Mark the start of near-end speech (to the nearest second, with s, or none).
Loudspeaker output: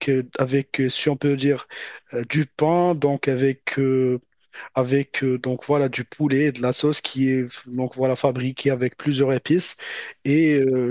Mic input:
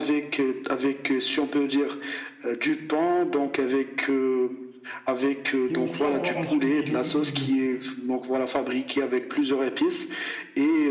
6 s